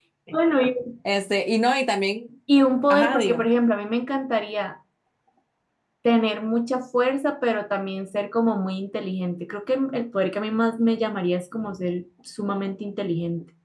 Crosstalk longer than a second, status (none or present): none